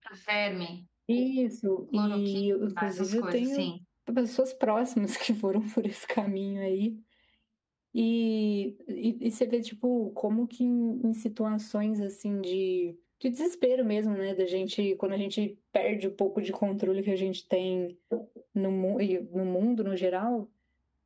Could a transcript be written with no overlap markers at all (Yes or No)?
No